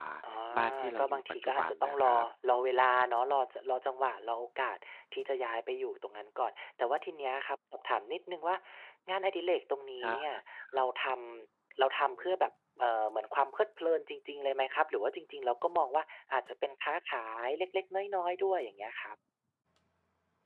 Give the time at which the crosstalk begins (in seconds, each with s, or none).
0.8 s